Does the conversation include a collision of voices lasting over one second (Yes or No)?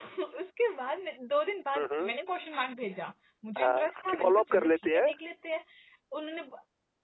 Yes